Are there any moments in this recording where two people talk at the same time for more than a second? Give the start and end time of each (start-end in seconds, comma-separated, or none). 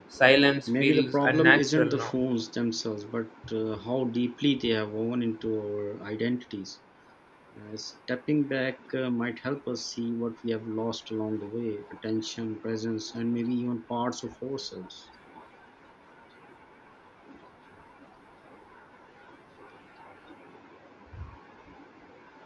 0.7-2.1